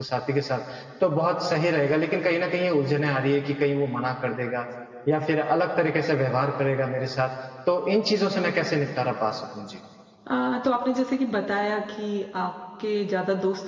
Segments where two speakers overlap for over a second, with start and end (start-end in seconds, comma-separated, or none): none